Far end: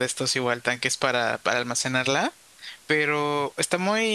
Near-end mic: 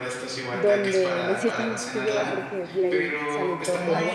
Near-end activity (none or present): present